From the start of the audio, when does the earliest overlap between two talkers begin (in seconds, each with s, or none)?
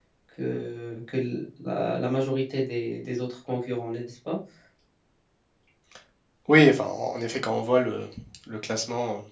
none